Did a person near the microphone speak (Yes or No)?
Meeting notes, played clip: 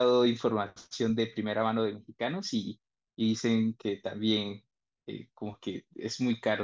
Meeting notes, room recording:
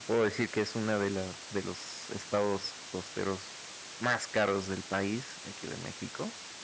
Yes